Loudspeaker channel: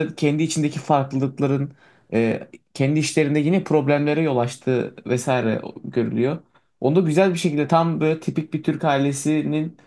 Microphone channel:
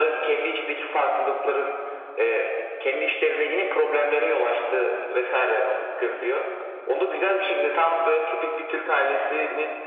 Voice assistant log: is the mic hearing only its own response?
Yes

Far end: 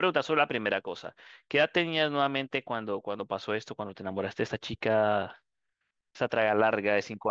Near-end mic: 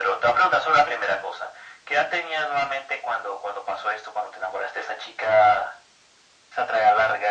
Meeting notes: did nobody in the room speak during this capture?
Yes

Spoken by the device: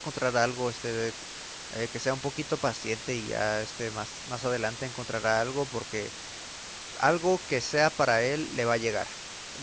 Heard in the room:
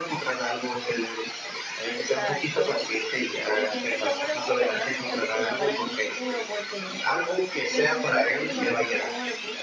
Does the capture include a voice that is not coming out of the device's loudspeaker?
Yes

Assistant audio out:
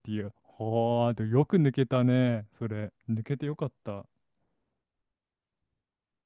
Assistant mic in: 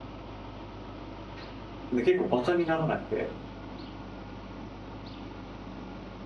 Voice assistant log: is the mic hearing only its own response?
No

